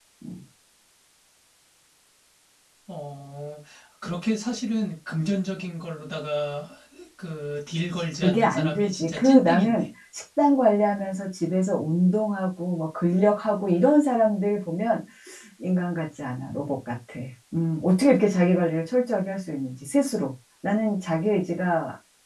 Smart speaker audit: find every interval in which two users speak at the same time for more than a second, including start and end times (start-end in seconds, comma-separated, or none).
8.2-9.8